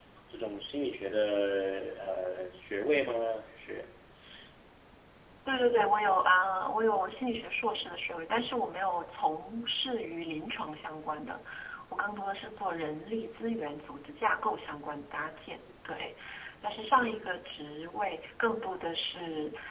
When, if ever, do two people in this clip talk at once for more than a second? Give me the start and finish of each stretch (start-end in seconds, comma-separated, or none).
none